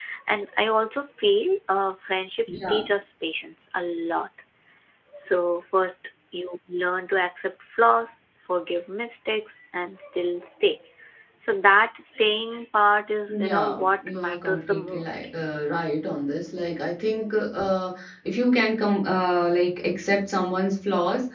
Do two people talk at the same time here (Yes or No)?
Yes